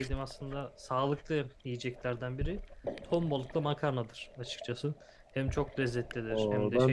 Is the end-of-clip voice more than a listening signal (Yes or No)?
Yes